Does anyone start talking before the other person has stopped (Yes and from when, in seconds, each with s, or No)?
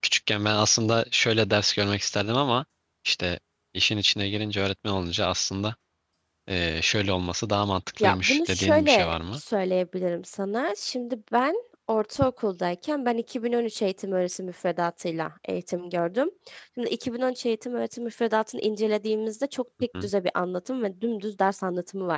Yes, from 8.0 s